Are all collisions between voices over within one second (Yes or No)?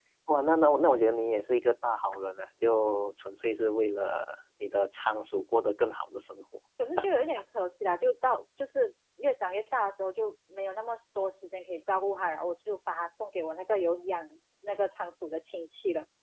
Yes